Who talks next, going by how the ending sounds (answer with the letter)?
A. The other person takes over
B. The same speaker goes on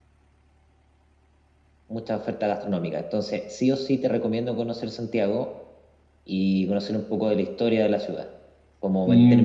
B